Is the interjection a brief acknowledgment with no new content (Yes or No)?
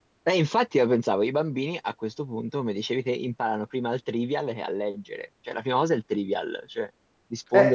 Yes